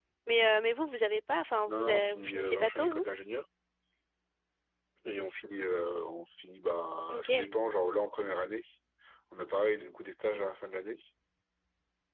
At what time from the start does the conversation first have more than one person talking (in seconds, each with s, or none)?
1.7 s